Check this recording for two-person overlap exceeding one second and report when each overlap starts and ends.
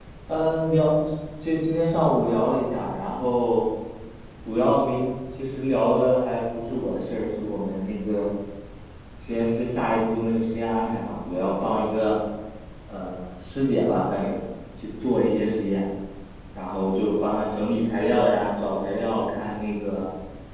none

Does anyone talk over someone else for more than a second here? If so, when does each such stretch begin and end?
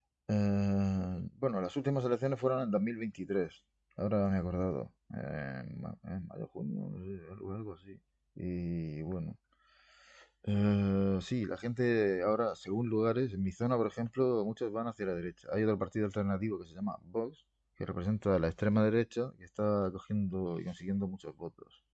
none

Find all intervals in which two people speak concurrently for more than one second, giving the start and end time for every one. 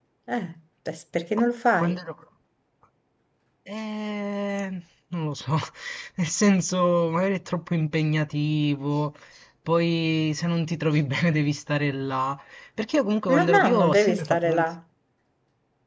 13.4-14.7

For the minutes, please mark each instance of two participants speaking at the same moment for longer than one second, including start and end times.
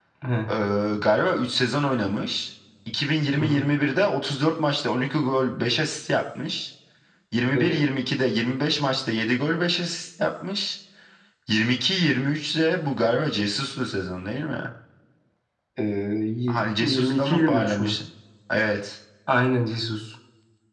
16.5-18.0

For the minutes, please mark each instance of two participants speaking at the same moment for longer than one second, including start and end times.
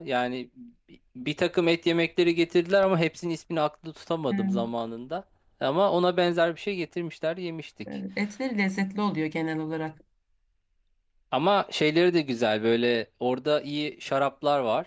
none

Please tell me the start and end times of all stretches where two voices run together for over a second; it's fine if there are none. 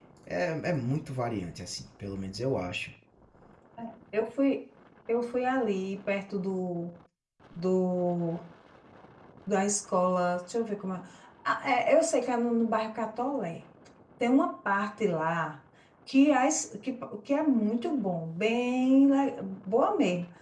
none

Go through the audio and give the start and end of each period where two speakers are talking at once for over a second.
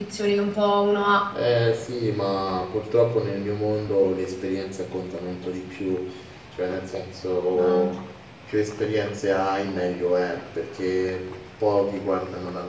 none

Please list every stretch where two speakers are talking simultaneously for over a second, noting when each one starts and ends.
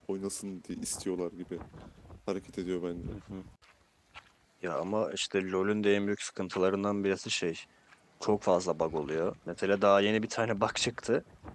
none

